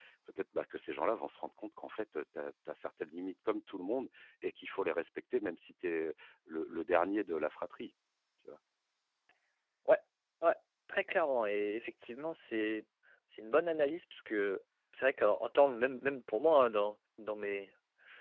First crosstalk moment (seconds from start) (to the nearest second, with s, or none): none